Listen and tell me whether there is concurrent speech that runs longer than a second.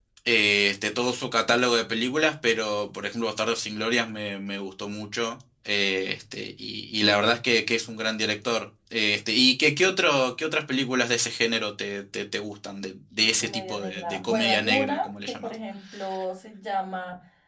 Yes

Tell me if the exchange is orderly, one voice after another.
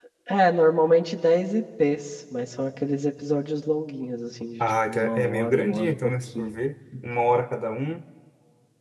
No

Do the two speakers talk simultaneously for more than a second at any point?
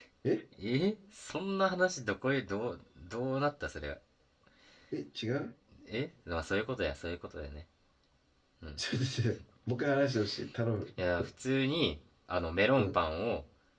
No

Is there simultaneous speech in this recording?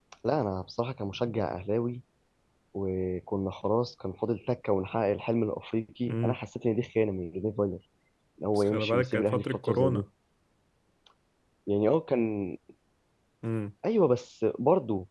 Yes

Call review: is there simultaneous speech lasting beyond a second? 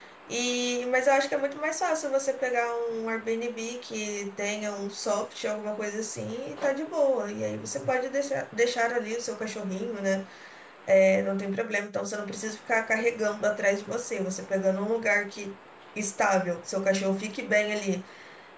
No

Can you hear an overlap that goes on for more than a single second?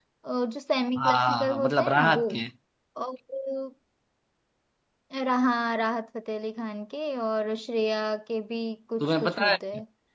Yes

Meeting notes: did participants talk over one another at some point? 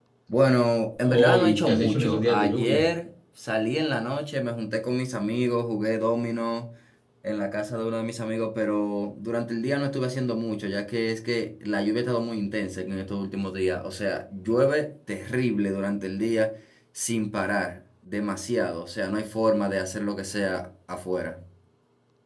Yes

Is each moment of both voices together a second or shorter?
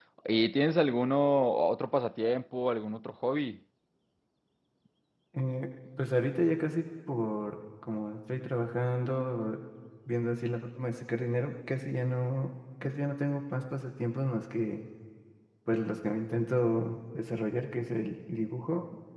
Yes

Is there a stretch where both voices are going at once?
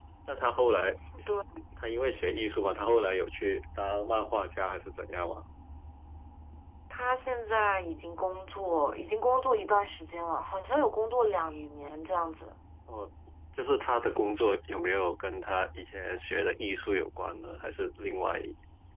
No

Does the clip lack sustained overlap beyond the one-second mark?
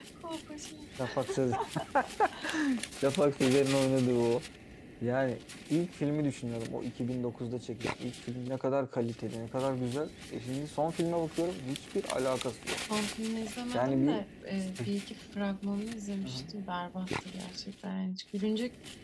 Yes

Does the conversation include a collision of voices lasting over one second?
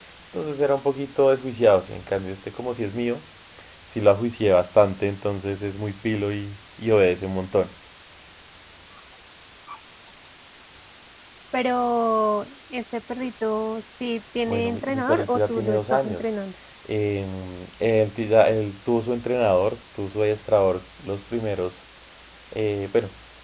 Yes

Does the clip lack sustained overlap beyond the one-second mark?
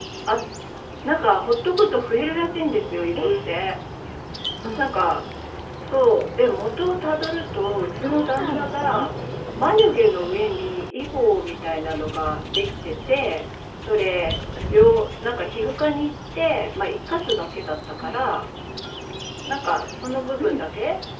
No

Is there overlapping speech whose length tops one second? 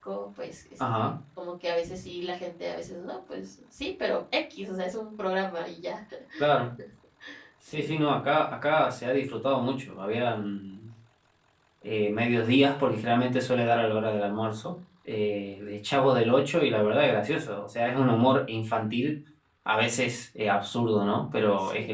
No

